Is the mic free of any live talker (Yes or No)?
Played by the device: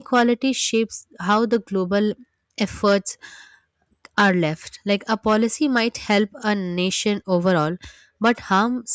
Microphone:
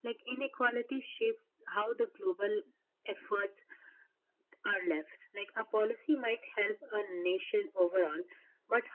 Yes